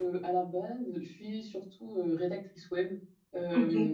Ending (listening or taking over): listening